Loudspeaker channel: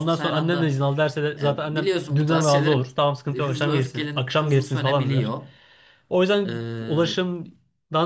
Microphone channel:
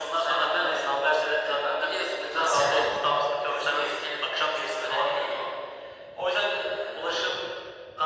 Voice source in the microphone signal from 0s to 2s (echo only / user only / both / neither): echo only